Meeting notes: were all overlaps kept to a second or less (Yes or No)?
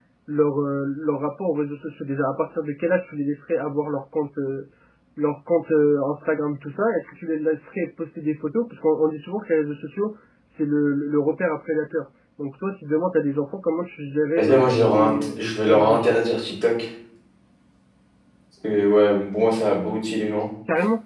No